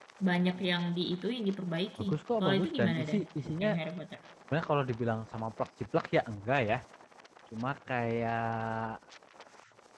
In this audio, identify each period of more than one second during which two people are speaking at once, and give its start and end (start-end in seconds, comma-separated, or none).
2.0-3.2